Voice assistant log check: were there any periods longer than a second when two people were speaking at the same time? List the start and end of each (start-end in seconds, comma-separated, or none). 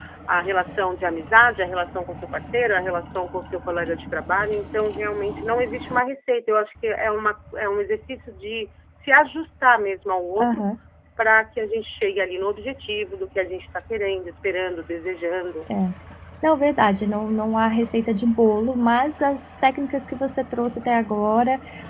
none